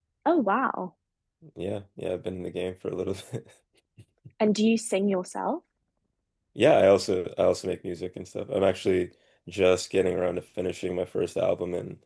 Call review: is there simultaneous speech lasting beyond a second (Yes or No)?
No